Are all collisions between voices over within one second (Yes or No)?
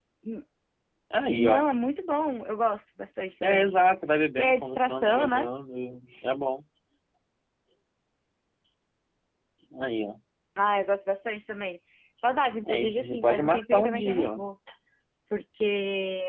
No